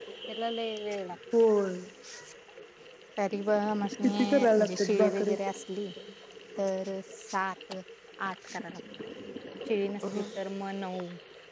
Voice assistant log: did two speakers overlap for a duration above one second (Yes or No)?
Yes